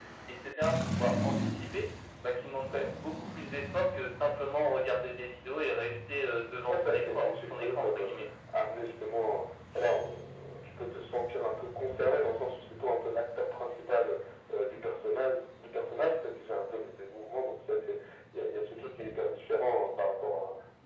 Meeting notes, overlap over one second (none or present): present